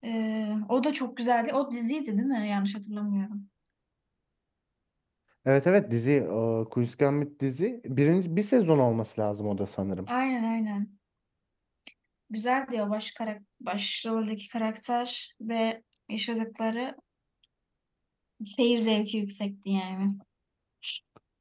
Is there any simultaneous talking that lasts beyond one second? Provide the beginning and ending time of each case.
none

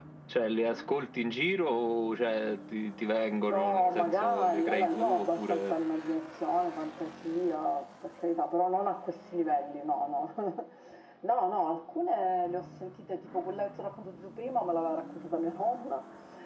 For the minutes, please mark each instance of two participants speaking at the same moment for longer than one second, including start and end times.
3.5-5.7

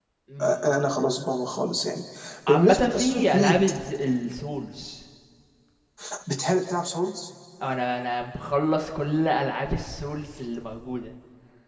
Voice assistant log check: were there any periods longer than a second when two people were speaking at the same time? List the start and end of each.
2.5-3.7

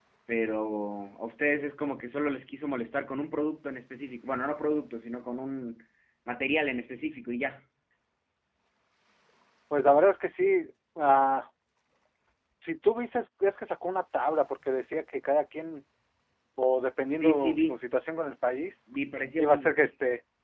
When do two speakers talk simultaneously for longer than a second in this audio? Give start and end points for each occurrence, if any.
none

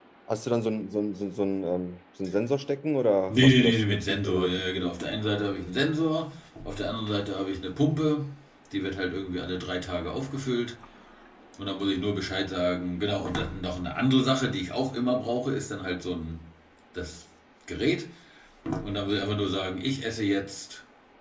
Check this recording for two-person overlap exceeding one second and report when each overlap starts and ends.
3.3-4.9

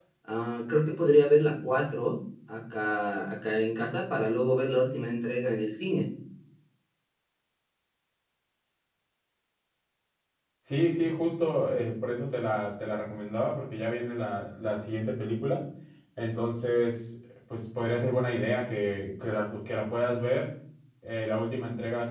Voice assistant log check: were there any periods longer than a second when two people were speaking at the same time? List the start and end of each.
none

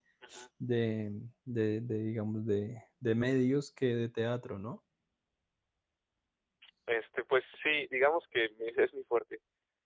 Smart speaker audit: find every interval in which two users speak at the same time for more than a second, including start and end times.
none

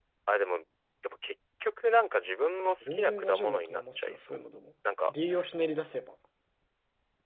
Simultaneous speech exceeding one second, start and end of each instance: 2.8-4.4

